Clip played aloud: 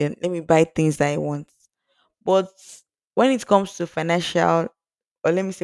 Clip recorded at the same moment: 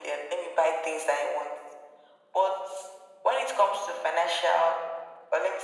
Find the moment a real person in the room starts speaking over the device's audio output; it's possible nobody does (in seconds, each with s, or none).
none